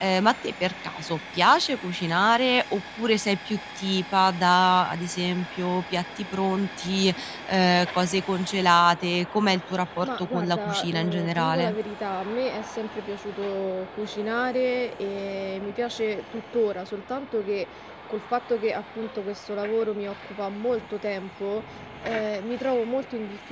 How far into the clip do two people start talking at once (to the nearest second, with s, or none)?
10 s